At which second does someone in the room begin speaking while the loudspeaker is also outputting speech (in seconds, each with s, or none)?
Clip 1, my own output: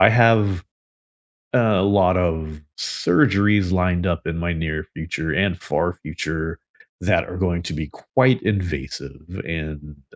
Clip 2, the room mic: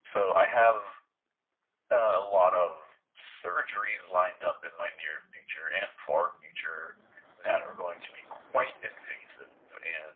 none